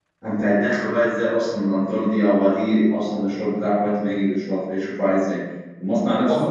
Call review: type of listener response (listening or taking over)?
listening